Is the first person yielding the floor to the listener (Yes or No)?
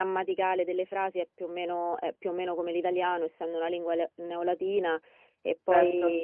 No